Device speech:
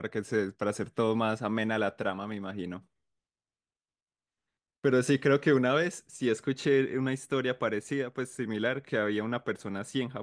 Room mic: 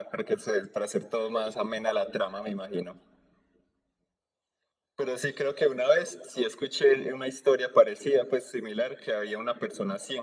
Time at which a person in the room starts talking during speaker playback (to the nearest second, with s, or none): none